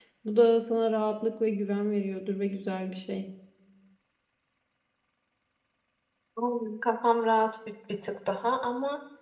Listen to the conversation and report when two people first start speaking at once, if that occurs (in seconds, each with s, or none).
none